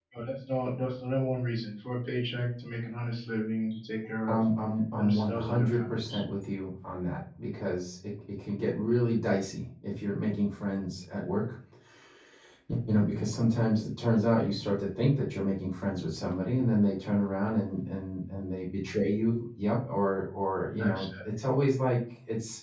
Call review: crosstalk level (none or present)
present